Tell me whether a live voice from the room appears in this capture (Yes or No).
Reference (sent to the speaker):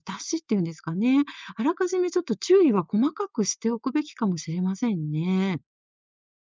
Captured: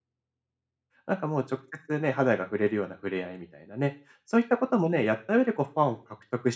Yes